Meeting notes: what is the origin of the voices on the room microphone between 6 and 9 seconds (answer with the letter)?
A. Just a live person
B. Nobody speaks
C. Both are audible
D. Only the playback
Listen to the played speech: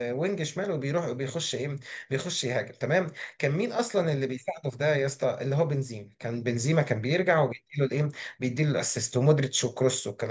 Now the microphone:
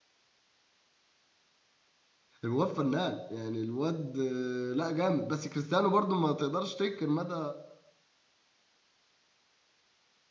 A